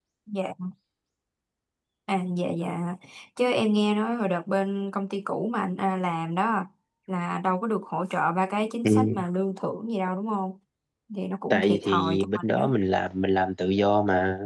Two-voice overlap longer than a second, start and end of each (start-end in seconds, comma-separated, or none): 11.5-12.7